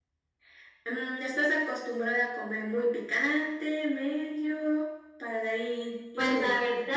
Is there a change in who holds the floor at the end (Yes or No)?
Yes